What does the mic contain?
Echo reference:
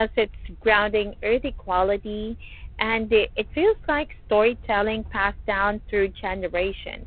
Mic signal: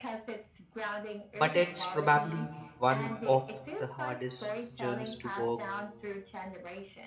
both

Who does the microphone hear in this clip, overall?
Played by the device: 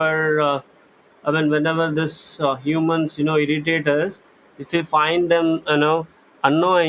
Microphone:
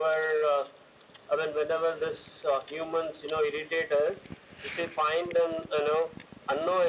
echo only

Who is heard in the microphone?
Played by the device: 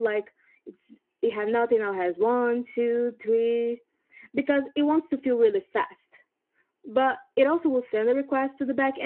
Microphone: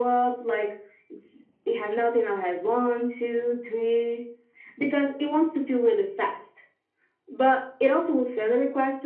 echo only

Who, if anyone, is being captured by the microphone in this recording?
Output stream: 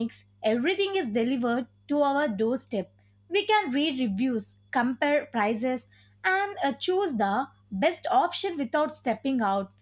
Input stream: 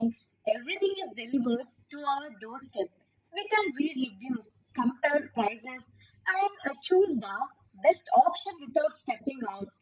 echo only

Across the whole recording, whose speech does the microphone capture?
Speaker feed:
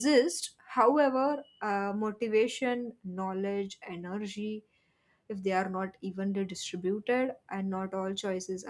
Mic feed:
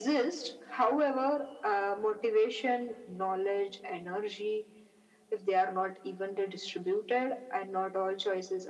echo only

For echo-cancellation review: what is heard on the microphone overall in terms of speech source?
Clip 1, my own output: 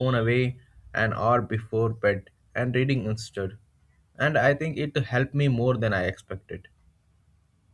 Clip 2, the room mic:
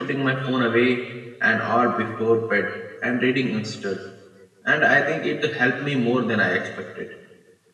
echo only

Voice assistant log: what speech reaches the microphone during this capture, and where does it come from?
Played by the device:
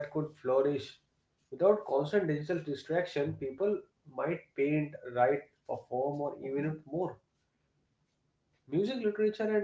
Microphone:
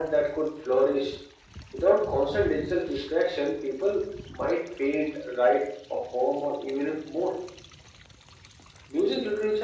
echo only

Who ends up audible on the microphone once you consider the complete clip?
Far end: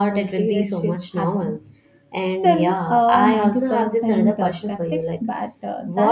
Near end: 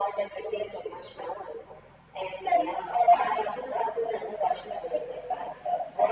echo only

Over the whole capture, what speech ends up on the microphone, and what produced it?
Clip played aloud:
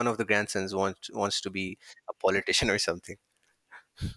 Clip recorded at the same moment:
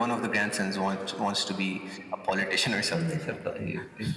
both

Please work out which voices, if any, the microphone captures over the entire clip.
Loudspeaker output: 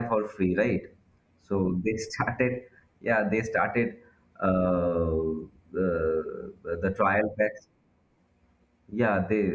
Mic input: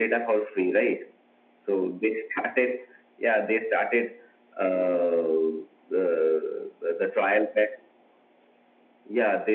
echo only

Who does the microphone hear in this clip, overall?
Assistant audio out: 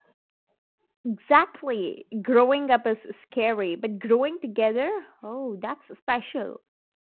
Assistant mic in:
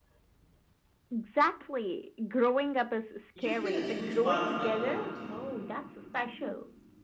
both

